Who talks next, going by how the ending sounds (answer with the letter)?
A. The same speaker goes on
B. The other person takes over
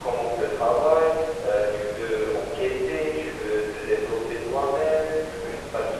A